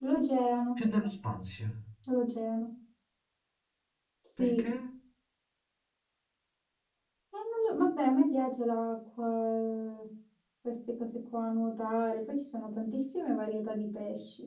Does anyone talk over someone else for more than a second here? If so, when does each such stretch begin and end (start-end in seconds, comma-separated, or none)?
none